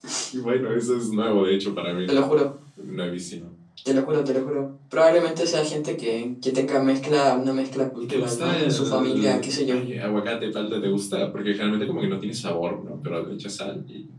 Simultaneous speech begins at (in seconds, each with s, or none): 8.0 s